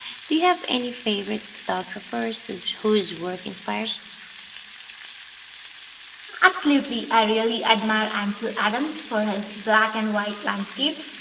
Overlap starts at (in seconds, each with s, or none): none